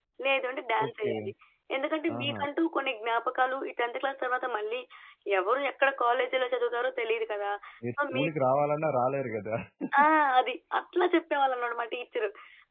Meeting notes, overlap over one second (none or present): none